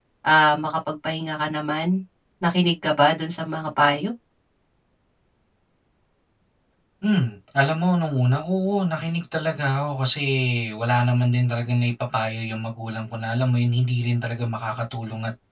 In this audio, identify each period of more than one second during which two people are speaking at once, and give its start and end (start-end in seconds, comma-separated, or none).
none